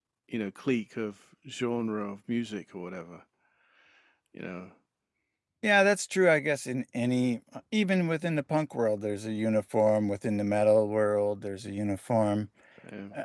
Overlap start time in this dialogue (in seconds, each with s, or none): none